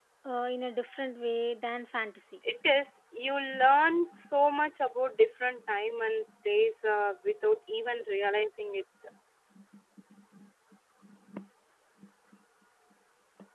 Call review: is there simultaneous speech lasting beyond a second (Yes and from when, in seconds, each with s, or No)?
No